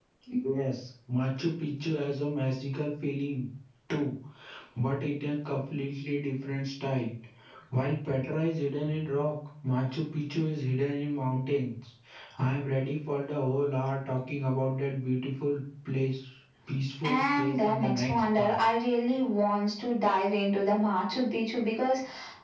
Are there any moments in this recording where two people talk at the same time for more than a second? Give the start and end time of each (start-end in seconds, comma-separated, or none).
17.0-18.6